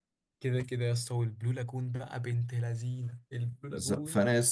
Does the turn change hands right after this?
Yes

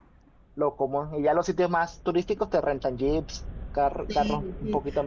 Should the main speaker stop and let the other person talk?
Yes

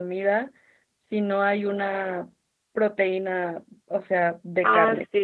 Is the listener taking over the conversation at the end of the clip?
Yes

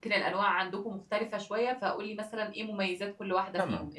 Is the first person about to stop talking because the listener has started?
Yes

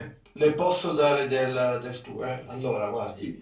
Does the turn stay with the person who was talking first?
Yes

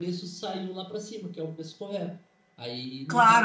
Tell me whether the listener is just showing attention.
No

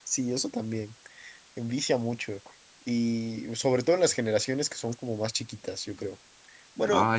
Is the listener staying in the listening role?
Yes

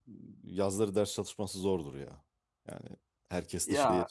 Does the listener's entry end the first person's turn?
No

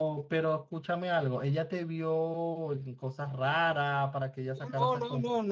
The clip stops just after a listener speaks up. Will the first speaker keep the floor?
No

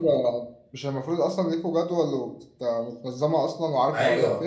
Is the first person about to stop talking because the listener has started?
Yes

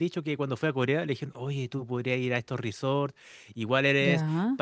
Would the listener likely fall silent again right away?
Yes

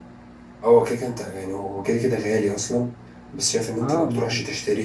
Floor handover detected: No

